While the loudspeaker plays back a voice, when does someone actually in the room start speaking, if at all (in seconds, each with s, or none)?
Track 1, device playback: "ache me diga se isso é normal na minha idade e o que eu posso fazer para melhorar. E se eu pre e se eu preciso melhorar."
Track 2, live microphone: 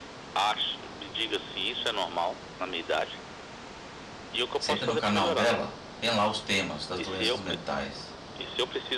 4.6 s